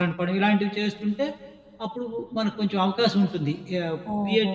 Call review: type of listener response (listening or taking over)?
taking over